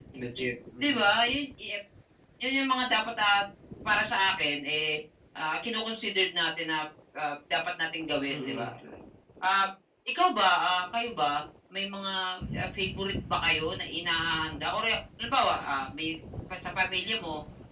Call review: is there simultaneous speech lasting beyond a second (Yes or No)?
No